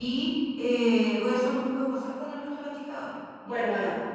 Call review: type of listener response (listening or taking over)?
taking over